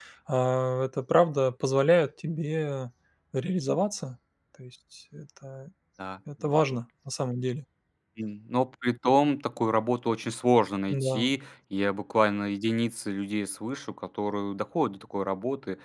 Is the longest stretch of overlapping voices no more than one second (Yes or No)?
Yes